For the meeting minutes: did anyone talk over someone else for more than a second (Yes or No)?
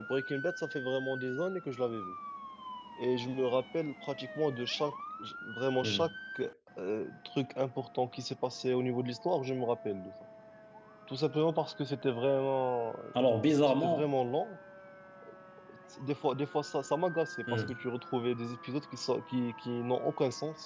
No